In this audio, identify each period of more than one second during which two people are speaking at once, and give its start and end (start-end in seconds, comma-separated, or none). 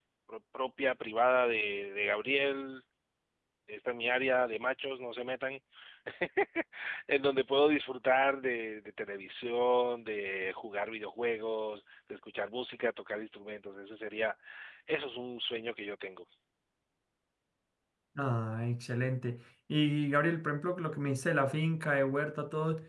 none